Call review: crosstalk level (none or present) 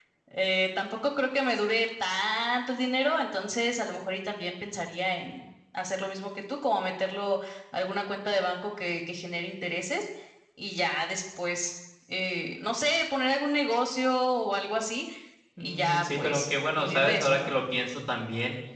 present